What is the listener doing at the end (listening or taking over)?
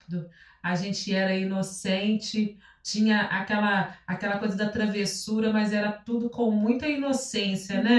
taking over